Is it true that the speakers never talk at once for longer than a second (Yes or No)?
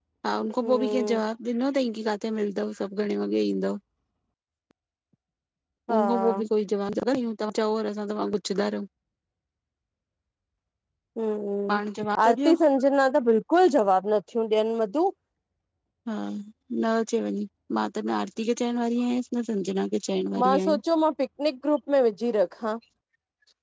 Yes